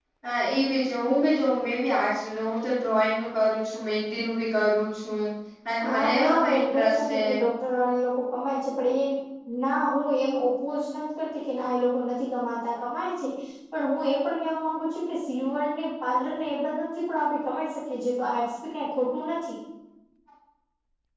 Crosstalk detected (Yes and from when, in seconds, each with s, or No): Yes, from 5.8 s